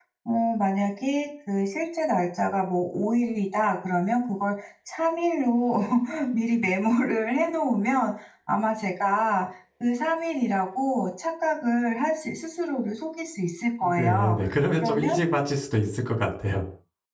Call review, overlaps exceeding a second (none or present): none